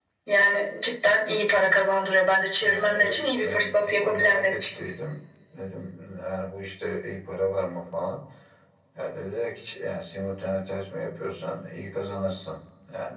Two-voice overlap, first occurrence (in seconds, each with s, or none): 2.6 s